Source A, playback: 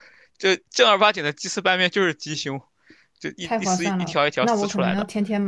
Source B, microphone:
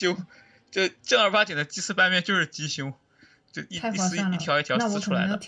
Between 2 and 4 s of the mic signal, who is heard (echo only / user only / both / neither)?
echo only